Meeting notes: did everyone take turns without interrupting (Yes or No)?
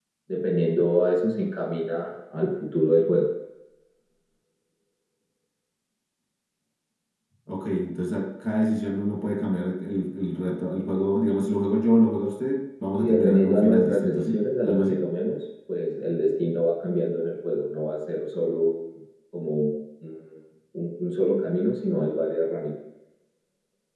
No